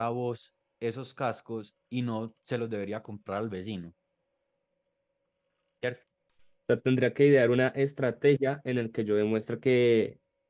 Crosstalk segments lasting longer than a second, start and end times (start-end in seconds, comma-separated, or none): none